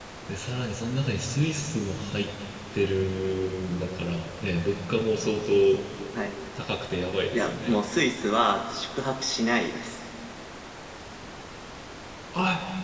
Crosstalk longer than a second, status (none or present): none